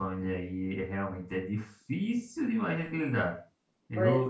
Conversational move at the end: listening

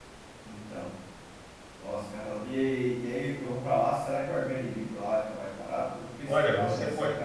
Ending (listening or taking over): taking over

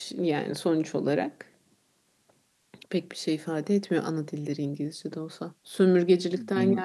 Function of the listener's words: listening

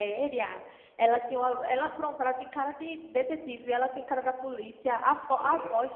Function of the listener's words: listening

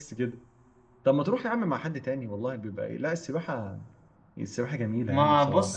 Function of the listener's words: taking over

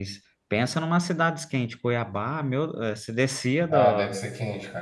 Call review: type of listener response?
taking over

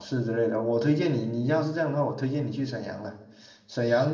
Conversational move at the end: listening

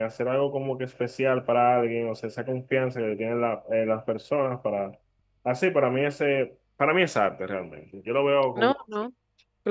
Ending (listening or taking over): taking over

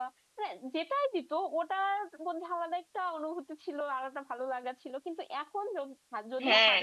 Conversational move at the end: taking over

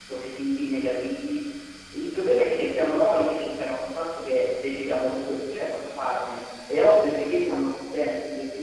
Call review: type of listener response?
listening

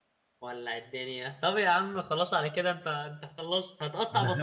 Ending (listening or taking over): taking over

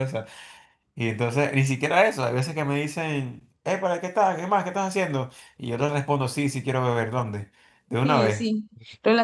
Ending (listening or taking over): taking over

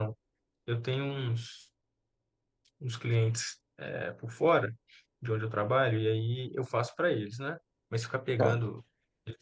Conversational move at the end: listening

